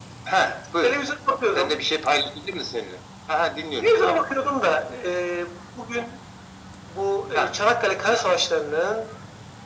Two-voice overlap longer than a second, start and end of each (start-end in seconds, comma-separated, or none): none